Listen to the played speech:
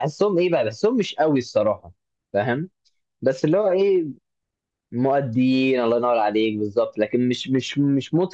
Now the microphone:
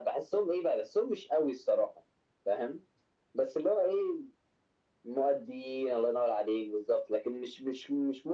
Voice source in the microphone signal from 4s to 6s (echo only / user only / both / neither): echo only